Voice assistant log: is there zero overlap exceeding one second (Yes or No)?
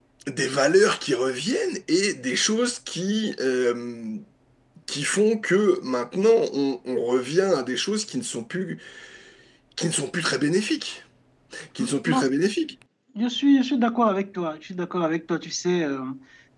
Yes